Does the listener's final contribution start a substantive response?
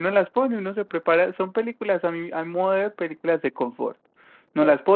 No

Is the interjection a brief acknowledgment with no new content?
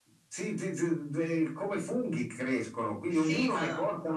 Yes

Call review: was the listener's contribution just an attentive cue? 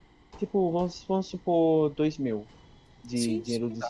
No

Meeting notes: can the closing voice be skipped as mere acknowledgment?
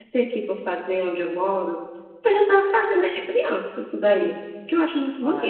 No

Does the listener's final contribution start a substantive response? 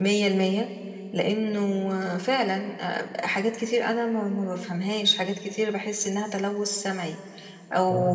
No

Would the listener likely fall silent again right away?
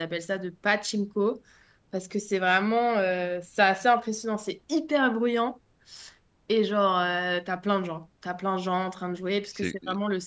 Yes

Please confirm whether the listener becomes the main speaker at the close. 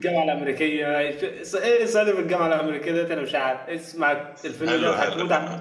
Yes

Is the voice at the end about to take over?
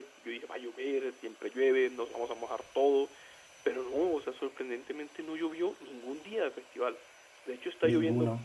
No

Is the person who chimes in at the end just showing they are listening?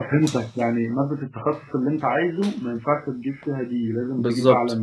No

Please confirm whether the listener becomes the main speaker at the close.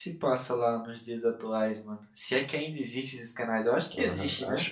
Yes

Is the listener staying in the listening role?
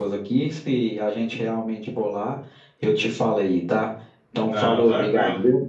No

